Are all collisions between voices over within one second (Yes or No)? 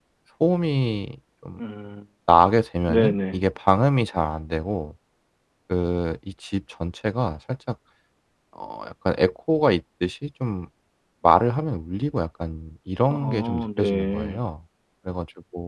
No